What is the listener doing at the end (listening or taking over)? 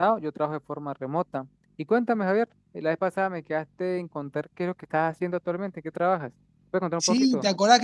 taking over